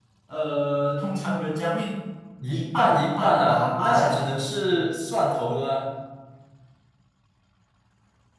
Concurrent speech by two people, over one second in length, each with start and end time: 2.5-4.3

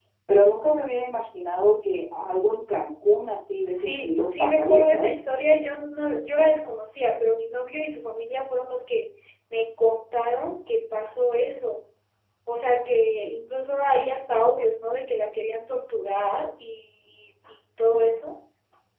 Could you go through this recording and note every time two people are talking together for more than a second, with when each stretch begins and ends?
3.7-5.1

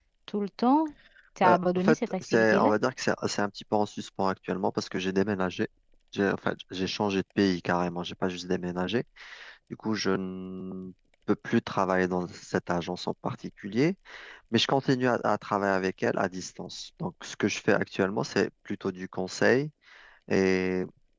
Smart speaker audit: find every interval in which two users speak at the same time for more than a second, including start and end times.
1.4-2.7

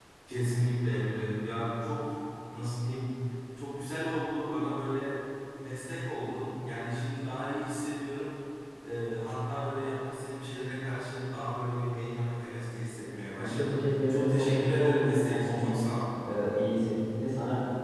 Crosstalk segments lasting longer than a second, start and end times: 13.4-15.9

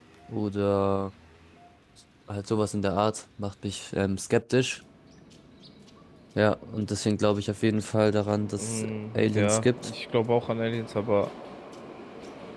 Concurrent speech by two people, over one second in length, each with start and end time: 8.6-9.9

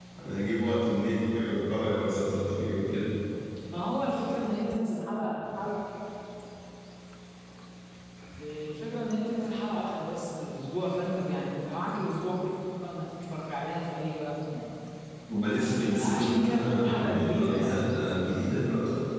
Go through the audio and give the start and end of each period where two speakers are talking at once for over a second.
15.5-17.8

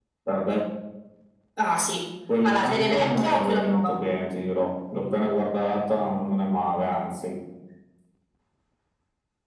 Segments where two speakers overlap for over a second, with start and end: 2.4-4.0

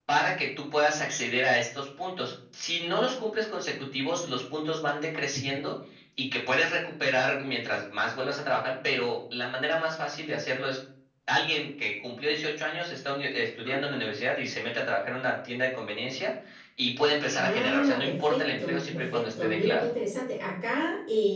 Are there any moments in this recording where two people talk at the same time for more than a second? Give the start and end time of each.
17.3-19.9

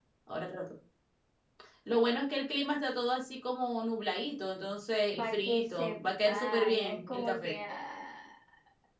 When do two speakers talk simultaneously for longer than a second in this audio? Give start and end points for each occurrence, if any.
5.2-7.6

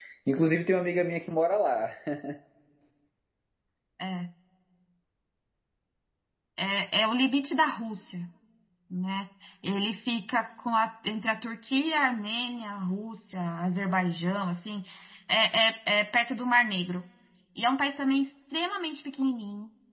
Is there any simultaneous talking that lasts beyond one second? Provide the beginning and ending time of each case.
none

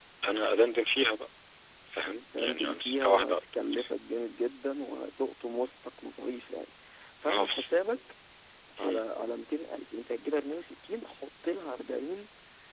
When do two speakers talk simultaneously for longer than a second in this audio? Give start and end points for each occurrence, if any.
2.1-3.4

